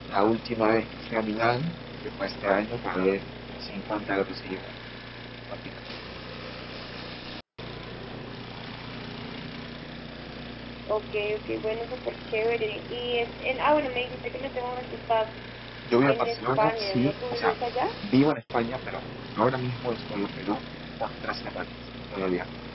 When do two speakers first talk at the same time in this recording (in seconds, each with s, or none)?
16.0 s